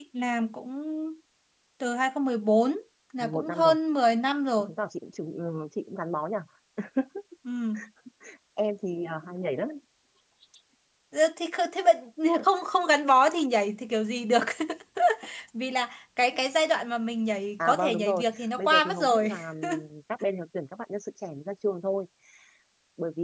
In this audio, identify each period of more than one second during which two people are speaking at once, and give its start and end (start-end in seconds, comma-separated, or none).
17.6-19.3